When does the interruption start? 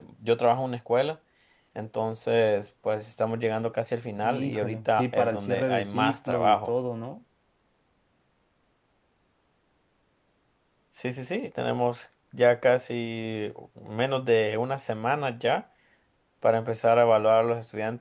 4.2 s

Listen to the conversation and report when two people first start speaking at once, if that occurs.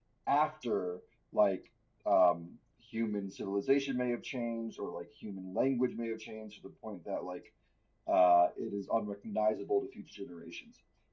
none

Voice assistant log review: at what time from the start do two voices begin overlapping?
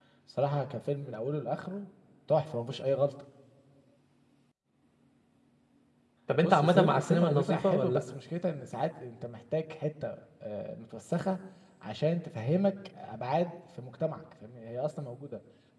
6.4 s

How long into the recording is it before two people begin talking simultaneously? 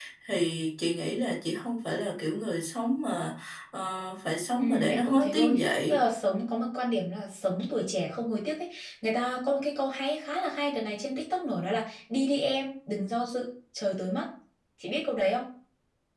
4.6 s

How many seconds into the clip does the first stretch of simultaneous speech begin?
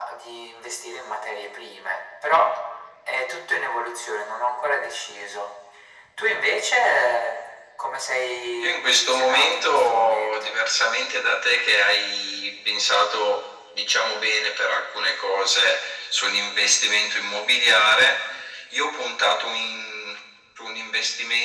8.6 s

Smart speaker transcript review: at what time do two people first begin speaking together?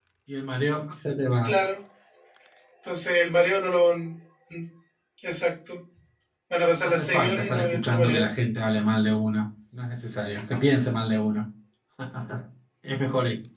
6.8 s

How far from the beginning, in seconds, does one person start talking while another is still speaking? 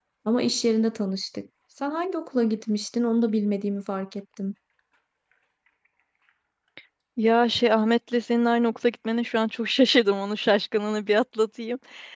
none

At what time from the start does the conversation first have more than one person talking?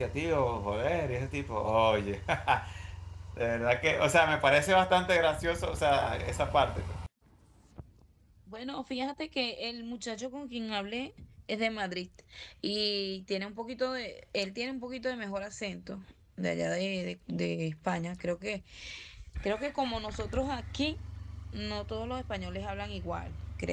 none

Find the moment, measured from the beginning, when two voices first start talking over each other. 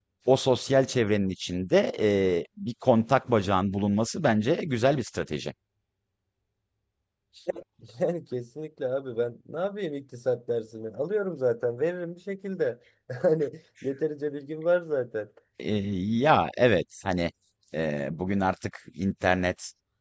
none

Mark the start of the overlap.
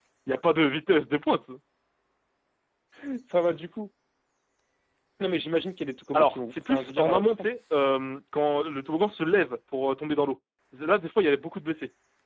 6.1 s

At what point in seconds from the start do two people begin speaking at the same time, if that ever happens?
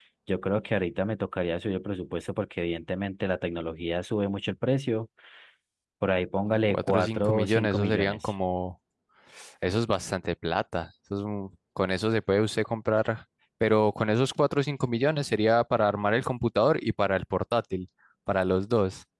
6.7 s

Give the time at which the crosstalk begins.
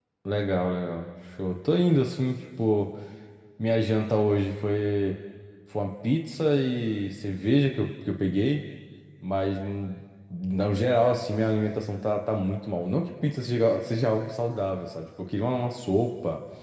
none

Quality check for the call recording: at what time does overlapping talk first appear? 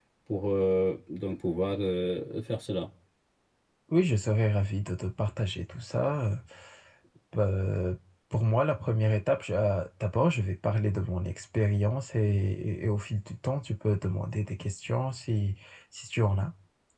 none

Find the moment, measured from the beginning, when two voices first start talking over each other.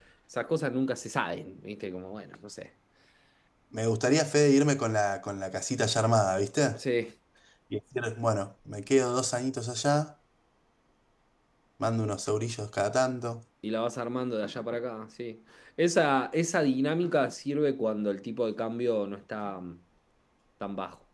none

